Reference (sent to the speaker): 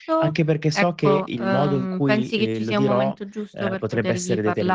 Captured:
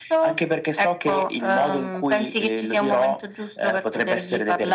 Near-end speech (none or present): none